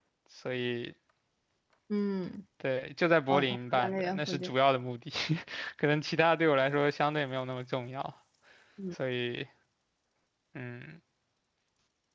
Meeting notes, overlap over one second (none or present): present